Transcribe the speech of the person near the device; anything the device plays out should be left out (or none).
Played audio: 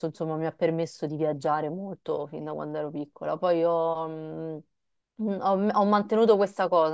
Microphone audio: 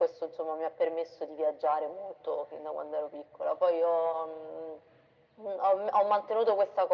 none